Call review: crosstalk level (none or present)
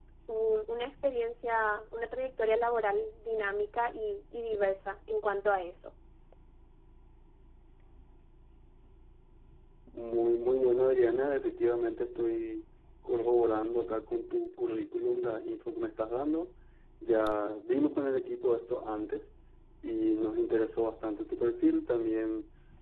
none